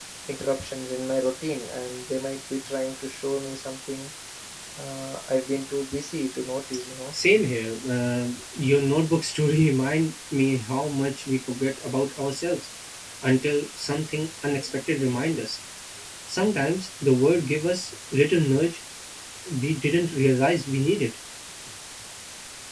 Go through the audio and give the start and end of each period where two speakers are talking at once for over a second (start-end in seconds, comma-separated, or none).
none